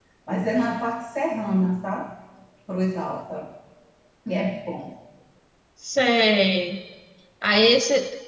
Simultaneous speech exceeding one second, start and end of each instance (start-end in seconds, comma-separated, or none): none